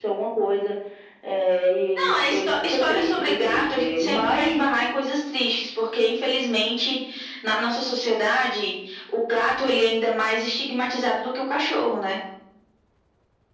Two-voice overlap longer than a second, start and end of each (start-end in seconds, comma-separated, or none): 2.0-4.6